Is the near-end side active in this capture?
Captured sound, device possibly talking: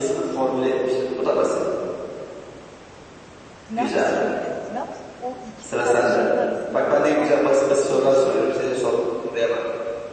Yes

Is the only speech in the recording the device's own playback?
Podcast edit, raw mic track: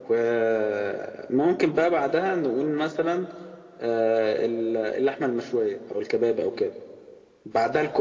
Yes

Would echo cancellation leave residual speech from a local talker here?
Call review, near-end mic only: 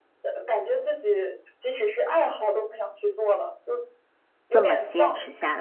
Yes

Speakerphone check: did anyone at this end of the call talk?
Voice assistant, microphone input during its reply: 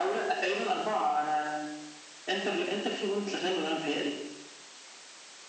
No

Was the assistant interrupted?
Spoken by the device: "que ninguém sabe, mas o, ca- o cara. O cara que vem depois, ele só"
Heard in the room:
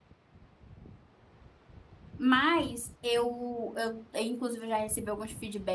Yes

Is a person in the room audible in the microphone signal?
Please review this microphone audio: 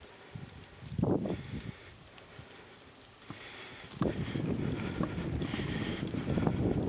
No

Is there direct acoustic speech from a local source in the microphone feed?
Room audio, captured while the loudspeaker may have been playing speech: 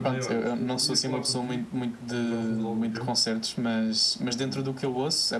Yes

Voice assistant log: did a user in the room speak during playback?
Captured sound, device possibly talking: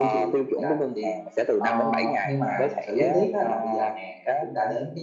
Yes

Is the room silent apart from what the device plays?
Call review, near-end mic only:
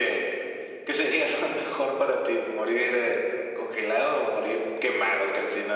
Yes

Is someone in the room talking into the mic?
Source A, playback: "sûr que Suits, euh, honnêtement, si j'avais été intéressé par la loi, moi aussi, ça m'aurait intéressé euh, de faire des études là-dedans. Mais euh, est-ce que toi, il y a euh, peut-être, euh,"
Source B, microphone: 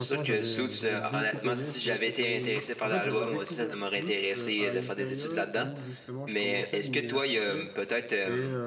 Yes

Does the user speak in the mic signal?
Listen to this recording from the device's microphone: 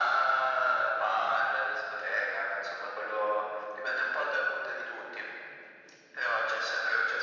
No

